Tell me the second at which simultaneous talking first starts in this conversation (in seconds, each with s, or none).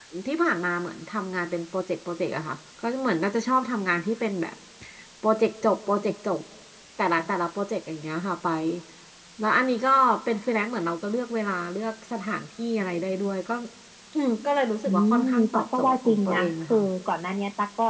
14.8 s